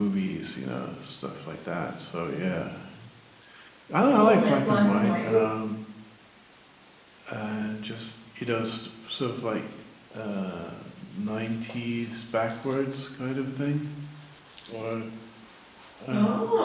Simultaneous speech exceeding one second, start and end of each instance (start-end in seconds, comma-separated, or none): 4.1-5.4